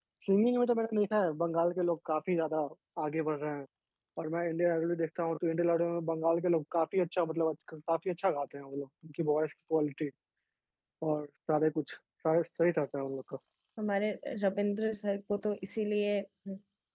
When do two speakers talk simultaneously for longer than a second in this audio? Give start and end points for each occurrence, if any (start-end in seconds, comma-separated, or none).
none